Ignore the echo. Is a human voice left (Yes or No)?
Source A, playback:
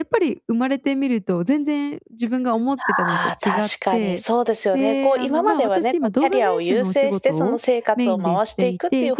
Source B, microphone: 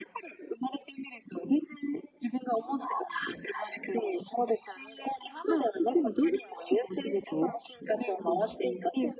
No